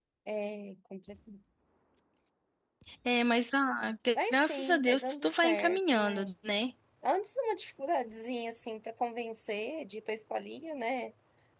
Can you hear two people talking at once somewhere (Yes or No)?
Yes